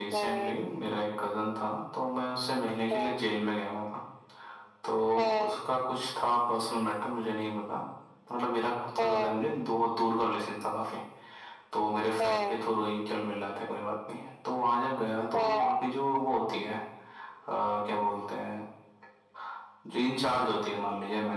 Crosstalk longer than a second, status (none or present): none